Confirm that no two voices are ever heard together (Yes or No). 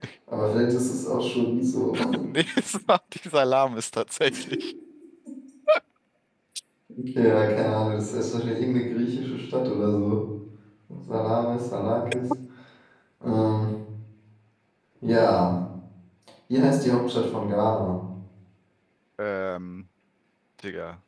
Yes